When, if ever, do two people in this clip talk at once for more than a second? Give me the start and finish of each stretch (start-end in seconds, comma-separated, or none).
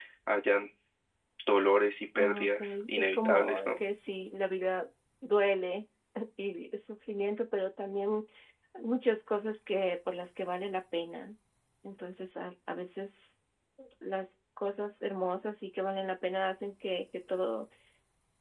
2.2-3.8